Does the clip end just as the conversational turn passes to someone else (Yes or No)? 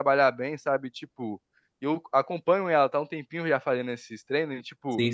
No